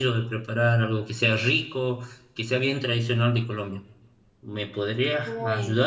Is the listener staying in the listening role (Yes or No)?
No